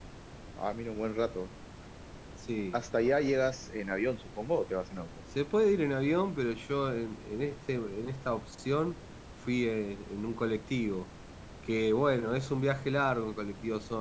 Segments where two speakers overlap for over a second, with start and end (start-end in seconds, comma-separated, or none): none